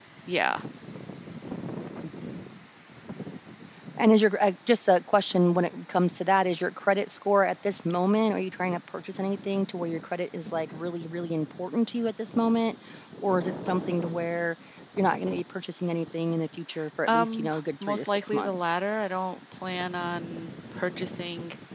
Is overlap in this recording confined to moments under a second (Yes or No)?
No